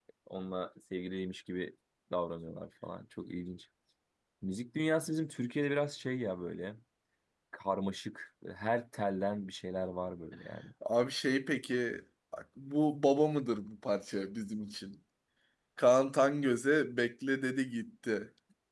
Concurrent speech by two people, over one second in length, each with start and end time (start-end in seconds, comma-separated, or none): none